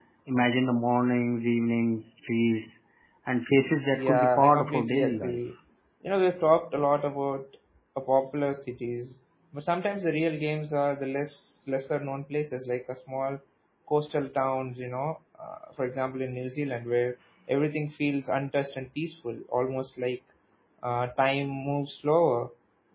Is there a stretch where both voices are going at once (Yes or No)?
Yes